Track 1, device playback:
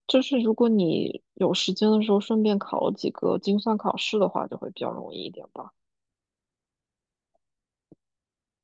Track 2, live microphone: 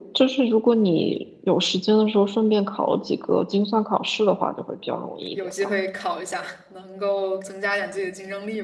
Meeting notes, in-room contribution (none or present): present